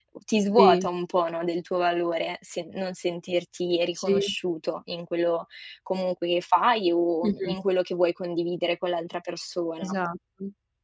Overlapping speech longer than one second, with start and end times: none

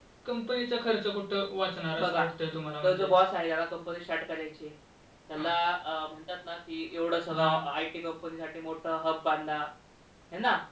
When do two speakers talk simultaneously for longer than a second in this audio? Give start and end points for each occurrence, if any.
none

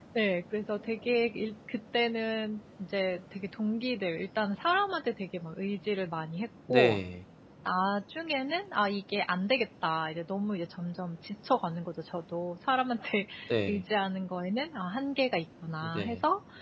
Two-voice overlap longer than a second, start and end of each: none

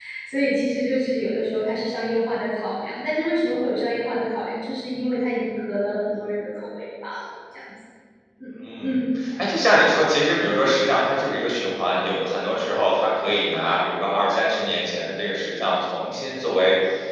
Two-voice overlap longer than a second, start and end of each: none

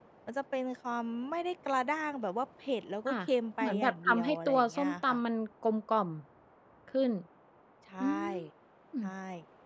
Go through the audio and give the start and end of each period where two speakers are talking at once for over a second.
3.6-5.2

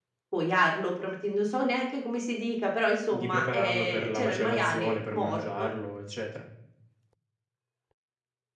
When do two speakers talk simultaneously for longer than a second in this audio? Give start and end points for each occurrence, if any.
3.1-5.7

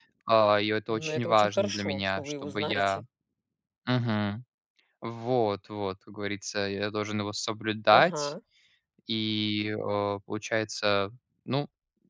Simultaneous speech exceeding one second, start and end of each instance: 0.9-3.0

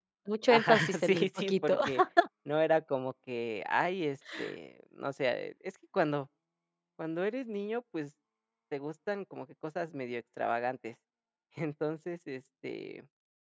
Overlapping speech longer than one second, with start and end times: 0.5-1.8

